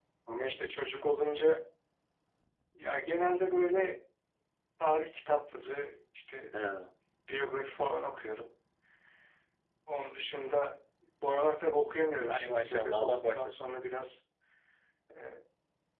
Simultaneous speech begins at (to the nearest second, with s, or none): 12 s